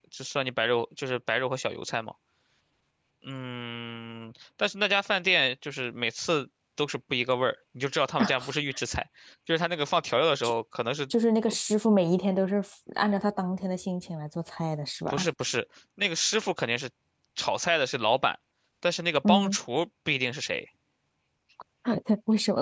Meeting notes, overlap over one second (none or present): none